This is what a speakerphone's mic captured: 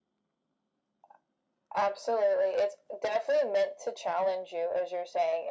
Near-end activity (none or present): none